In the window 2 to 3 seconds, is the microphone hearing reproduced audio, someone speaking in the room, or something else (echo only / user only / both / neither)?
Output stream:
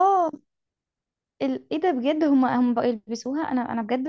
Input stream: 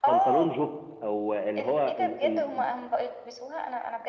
both